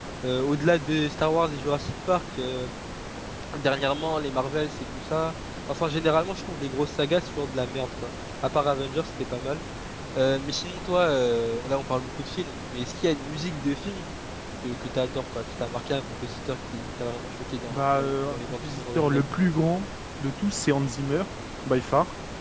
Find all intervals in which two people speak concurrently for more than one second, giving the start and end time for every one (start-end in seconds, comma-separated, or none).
17.7-19.3